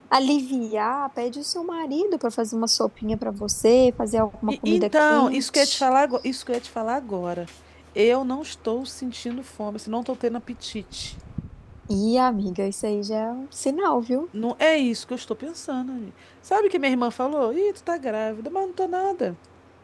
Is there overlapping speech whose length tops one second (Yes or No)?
Yes